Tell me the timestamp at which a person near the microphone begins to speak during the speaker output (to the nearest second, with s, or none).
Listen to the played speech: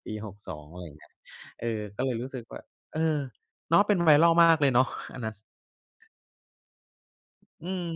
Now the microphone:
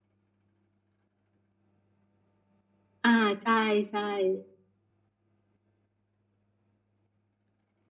3 s